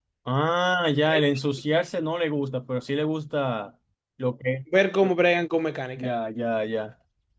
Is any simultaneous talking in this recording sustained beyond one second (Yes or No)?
No